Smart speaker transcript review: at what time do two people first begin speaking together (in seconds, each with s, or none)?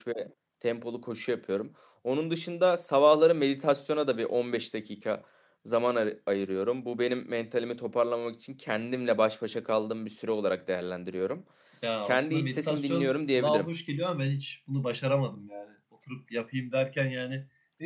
12.0 s